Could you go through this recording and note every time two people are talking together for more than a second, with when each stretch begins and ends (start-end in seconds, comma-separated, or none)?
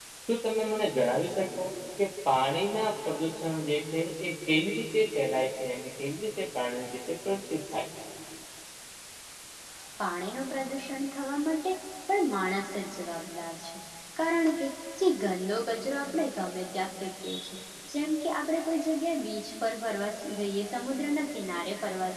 none